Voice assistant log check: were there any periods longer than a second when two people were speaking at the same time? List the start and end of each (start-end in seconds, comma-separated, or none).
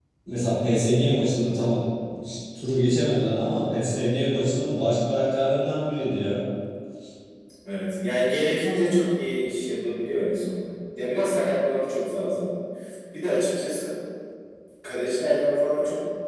none